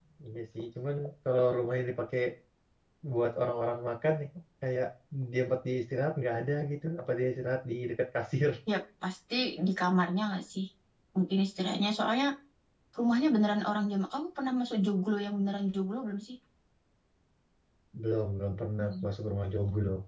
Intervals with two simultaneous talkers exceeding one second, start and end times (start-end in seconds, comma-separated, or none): none